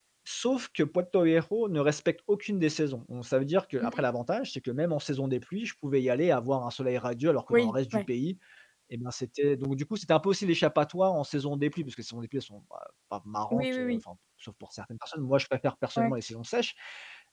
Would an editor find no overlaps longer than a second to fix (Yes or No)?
Yes